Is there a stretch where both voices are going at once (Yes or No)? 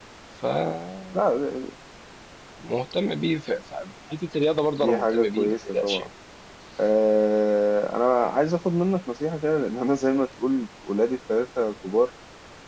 Yes